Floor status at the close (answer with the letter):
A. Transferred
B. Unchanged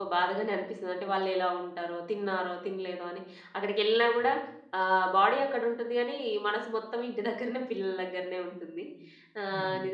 B